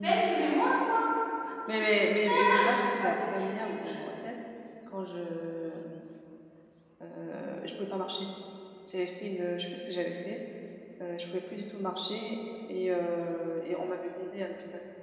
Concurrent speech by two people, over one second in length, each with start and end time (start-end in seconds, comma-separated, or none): 1.7-3.7